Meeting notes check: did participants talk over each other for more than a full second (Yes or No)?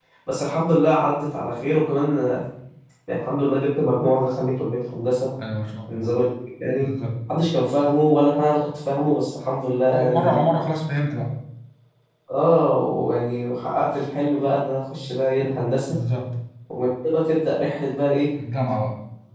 No